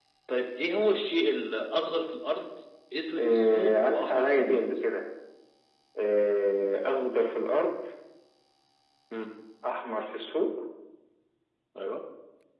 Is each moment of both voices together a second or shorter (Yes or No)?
No